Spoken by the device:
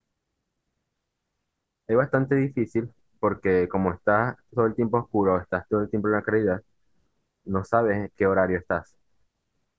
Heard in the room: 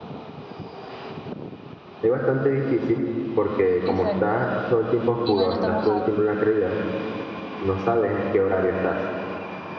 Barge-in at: 3.8 s

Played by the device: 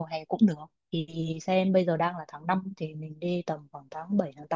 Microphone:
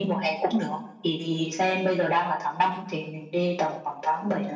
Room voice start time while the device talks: none

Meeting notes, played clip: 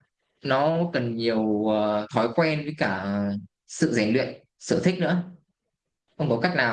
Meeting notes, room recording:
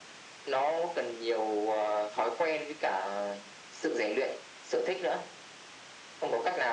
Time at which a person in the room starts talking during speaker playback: none

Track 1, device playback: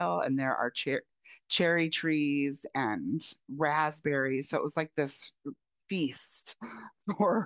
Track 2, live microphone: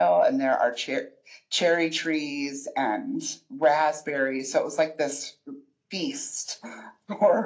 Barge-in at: none

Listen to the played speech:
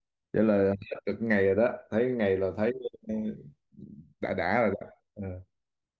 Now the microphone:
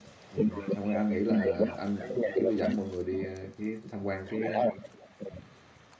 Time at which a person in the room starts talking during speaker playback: 0.3 s

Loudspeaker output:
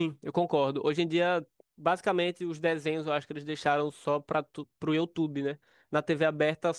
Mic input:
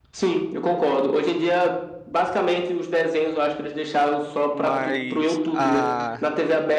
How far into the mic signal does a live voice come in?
4.5 s

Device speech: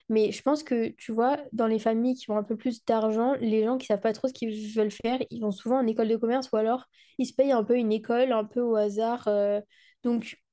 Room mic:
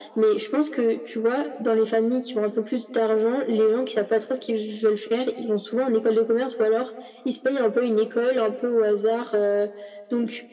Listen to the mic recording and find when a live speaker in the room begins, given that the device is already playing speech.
none

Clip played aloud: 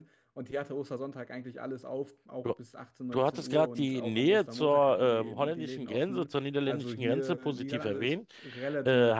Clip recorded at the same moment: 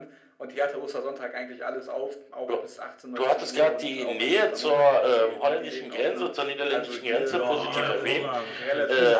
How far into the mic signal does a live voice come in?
7.3 s

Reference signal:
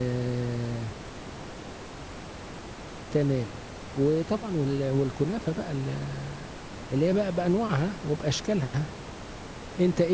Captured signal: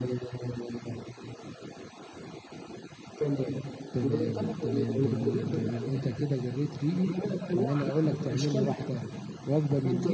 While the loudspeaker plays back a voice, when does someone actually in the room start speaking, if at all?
3.9 s

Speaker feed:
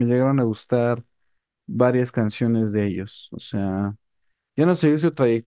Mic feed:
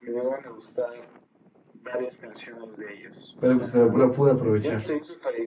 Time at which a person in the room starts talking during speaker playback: 3.4 s

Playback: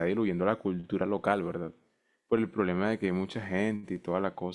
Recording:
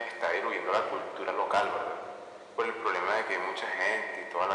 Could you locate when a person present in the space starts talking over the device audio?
none

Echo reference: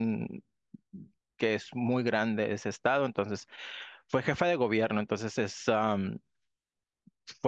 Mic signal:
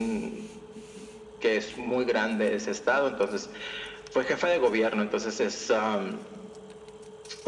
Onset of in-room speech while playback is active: none

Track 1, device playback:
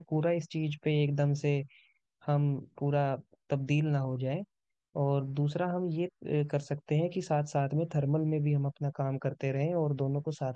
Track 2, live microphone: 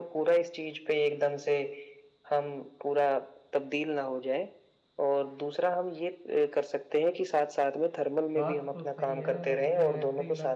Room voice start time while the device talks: 8.4 s

